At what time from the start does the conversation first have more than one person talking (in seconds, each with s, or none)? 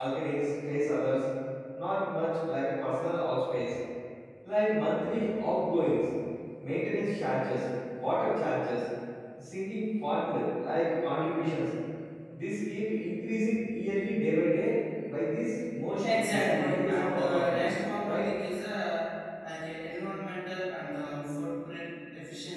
16.0 s